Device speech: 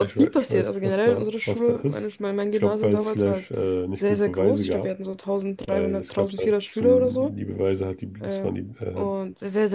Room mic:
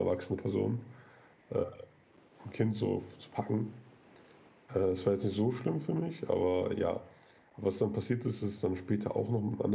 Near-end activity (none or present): present